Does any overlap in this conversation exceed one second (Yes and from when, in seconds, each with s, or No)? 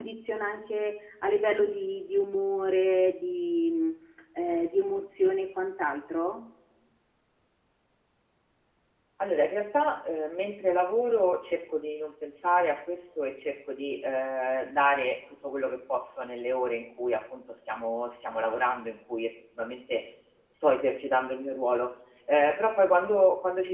No